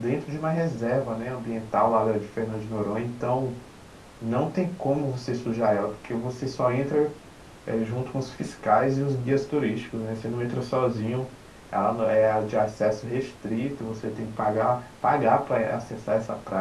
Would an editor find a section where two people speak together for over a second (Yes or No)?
No